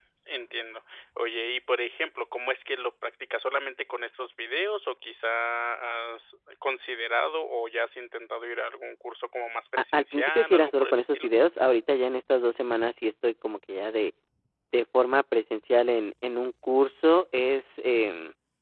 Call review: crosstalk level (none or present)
present